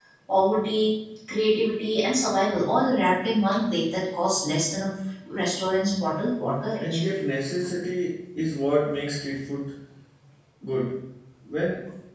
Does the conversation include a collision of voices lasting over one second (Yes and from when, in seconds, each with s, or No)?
No